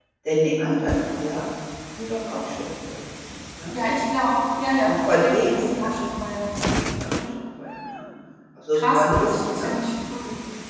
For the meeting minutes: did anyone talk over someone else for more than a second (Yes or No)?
Yes